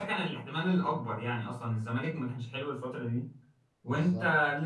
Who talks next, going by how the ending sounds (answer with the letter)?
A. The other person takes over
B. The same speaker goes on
B